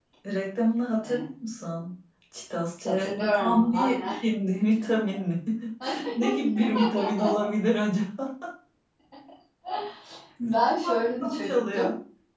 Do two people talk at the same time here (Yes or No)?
Yes